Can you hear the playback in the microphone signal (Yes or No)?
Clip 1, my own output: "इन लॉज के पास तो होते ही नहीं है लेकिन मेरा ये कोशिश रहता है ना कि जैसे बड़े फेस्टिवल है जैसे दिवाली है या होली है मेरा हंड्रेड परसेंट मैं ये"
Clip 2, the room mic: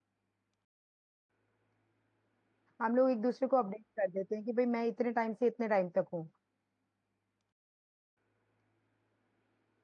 No